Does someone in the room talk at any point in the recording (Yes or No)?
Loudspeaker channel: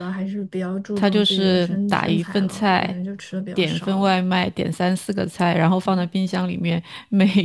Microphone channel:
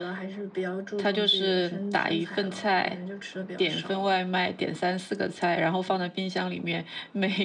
No